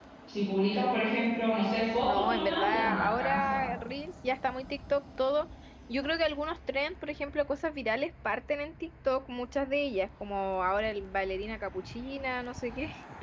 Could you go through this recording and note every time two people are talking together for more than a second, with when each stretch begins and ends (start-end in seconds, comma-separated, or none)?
2.0-3.6